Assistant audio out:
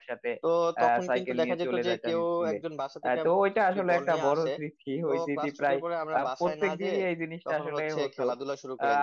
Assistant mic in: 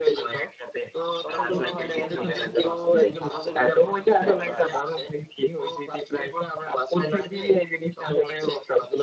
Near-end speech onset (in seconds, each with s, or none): 1.2 s